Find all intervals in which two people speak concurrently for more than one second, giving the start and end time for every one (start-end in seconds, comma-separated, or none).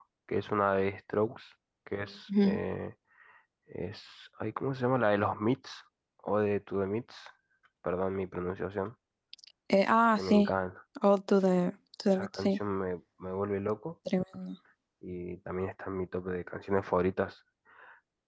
none